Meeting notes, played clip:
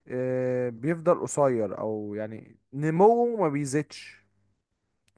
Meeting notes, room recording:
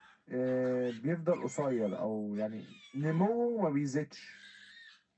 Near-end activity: none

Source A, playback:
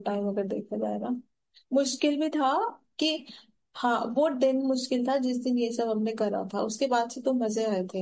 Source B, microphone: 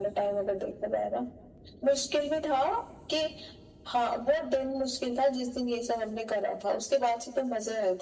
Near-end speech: none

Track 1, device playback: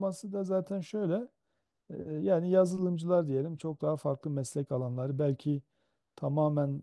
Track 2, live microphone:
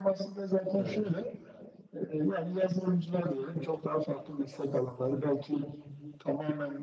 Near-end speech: present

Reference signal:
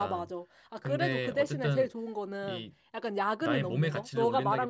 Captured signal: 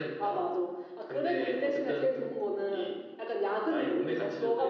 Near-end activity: none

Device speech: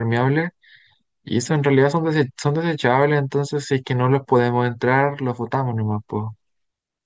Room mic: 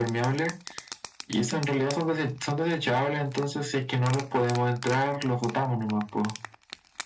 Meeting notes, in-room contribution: none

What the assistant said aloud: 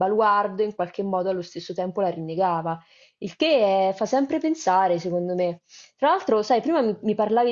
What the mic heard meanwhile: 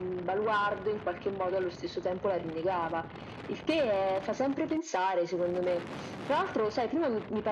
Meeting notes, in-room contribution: none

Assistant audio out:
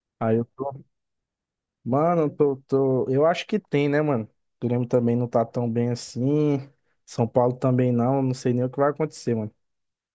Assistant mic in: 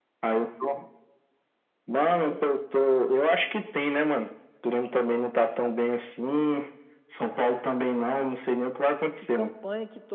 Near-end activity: present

